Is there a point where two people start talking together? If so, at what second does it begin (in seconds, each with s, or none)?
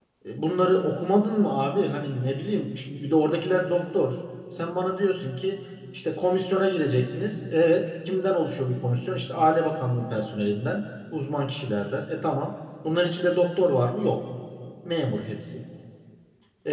none